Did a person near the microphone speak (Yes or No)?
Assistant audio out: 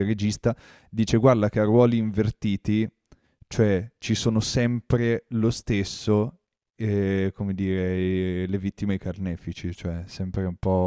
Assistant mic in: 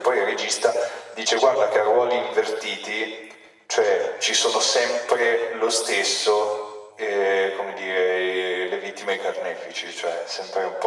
No